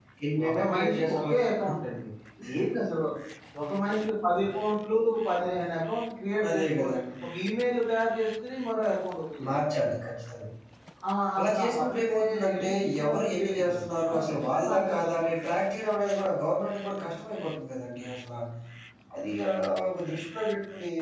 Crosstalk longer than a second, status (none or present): present